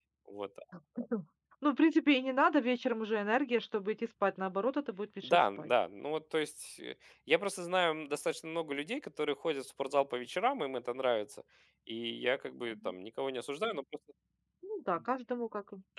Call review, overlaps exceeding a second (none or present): none